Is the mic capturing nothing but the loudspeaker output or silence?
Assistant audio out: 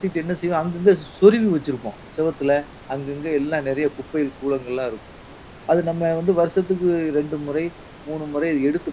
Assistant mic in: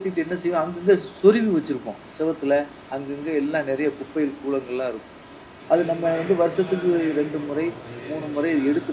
No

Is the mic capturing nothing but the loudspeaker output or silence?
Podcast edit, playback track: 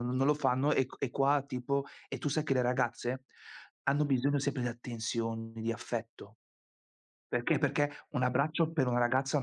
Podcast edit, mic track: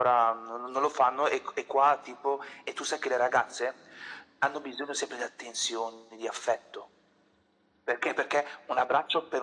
Yes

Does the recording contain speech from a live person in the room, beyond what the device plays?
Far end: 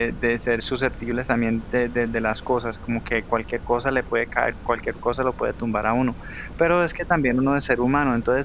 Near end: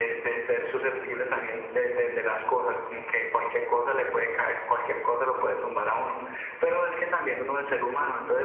No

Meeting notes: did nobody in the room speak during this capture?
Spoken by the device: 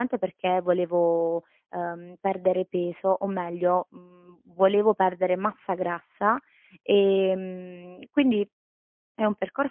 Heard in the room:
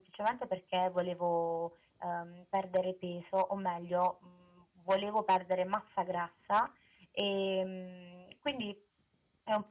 Yes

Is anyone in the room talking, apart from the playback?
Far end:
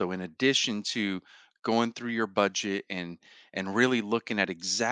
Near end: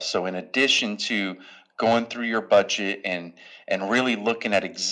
No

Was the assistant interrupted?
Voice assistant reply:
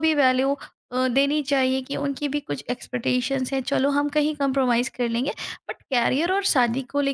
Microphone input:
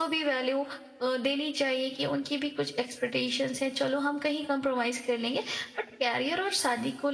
No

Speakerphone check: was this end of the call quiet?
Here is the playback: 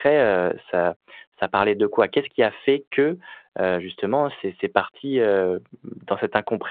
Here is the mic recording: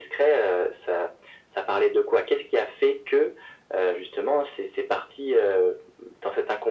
Yes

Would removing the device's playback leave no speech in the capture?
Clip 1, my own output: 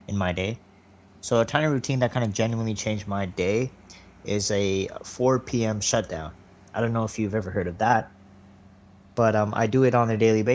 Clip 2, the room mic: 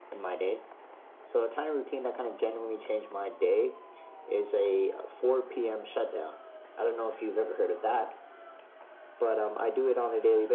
Yes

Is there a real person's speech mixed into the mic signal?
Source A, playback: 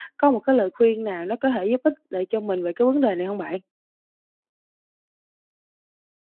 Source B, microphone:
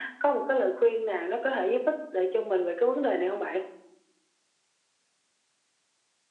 No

